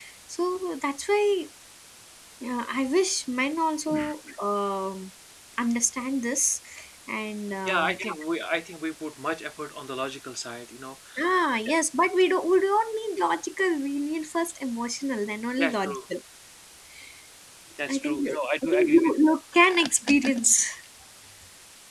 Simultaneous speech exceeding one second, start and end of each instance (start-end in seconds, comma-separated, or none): 17.9-19.1